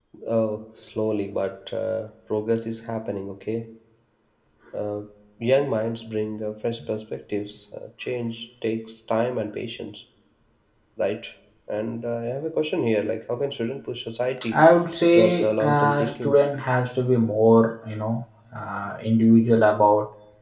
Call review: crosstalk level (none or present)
present